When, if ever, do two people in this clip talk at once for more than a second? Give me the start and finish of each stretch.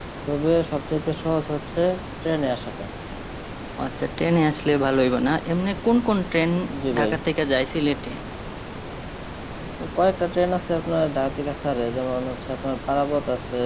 none

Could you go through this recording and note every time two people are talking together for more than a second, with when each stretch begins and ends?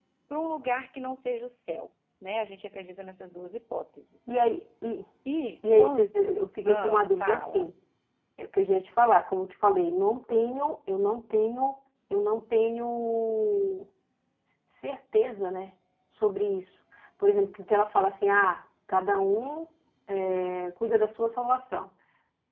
5.8-7.7

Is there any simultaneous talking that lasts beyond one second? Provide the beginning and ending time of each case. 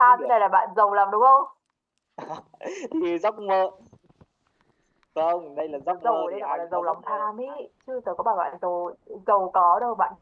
5.9-7.3

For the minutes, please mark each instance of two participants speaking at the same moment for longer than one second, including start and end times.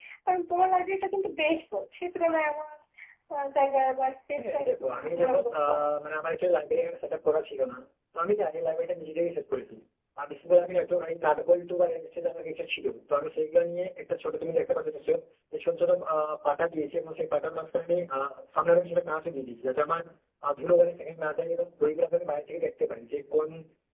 4.4-5.8

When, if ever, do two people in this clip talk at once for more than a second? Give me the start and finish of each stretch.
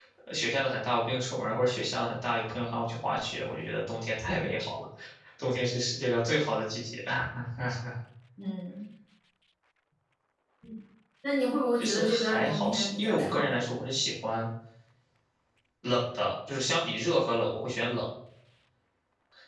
11.8-13.6

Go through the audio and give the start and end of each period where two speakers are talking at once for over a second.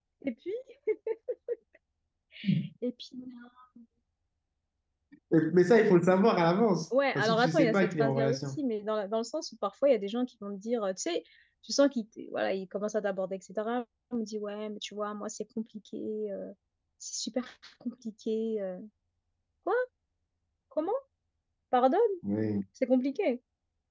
7.2-8.4

